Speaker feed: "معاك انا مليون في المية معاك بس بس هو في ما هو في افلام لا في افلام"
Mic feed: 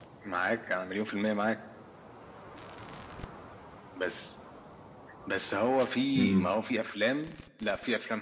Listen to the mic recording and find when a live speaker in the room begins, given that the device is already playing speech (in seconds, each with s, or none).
6.1 s